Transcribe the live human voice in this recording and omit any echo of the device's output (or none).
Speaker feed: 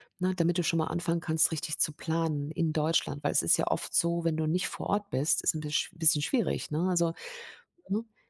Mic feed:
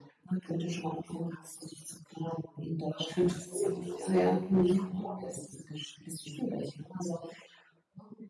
fünf Monate, ja, ja. Mhm,